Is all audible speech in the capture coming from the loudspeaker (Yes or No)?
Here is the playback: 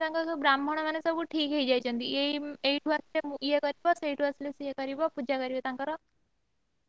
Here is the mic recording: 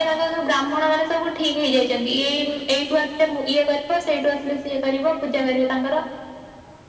Yes